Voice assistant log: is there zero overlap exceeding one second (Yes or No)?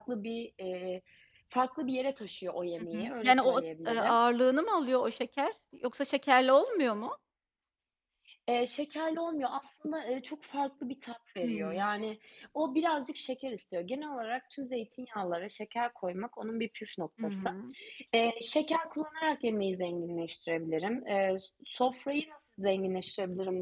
No